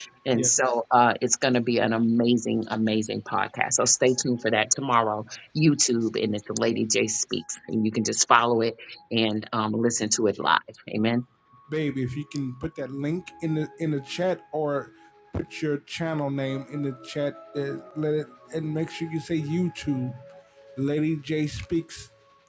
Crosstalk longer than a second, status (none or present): none